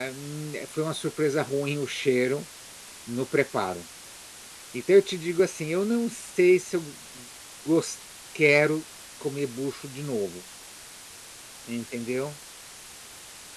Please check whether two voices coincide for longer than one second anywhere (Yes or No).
No